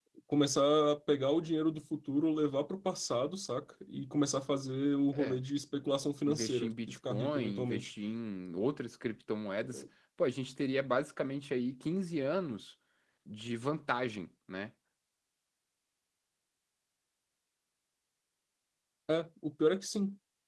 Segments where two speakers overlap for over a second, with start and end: 6.3-7.9

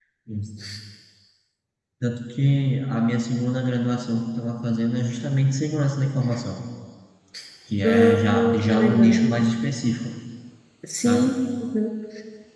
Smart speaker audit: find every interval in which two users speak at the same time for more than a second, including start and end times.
7.8-9.2

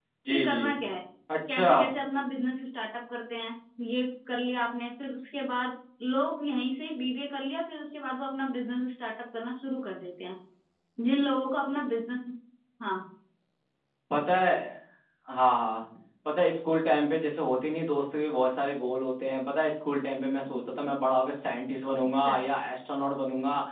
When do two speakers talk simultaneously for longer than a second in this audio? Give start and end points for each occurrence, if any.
none

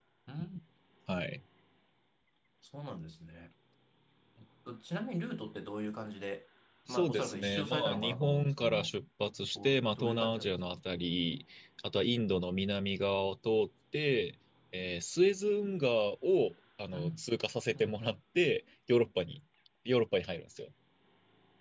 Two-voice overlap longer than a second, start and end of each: 6.9-8.9, 9.6-10.8

